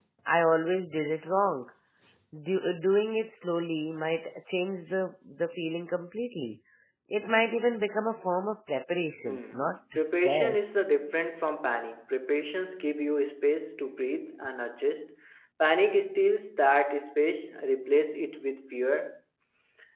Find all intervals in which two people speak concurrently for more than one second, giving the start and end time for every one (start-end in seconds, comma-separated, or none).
9.2-10.7